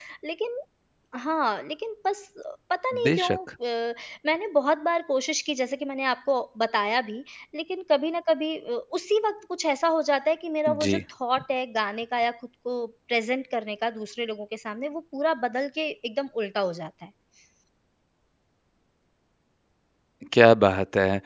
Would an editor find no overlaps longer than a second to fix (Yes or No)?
Yes